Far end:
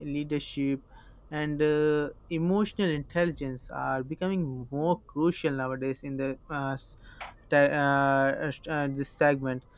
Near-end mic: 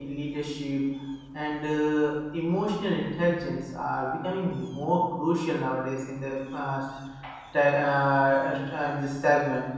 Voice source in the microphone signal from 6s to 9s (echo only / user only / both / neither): echo only